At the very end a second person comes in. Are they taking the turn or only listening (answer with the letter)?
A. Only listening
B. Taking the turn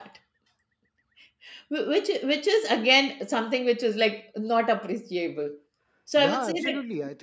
B